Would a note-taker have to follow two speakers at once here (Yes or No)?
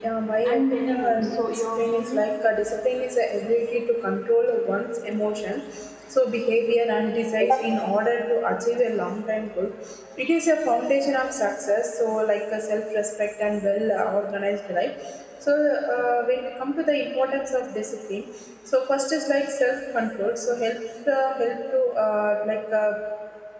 Yes